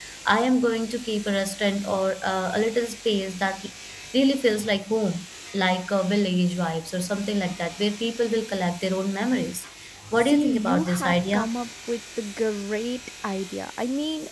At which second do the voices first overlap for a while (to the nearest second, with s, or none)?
10 s